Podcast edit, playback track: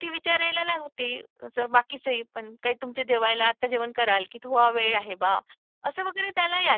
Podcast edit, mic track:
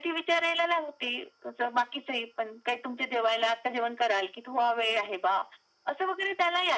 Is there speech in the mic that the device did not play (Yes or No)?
No